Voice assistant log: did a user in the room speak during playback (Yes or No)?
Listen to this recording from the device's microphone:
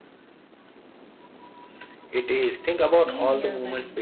Yes